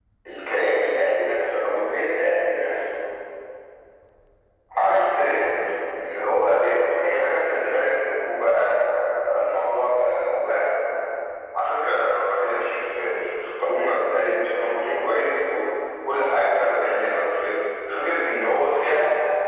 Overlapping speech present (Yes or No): No